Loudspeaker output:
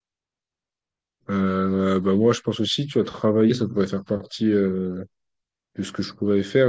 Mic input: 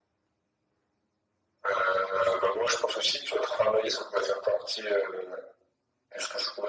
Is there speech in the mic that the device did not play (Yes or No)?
No